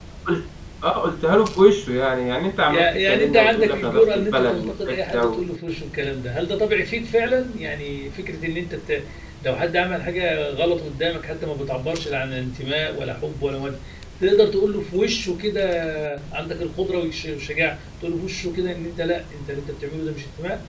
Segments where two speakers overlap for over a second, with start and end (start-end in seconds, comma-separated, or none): 2.7-5.4